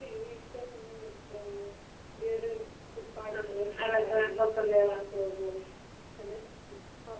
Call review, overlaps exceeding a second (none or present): present